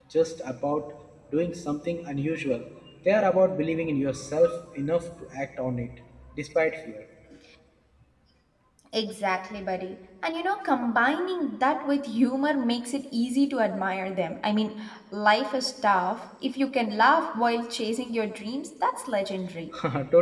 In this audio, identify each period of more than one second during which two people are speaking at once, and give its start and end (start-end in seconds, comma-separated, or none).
none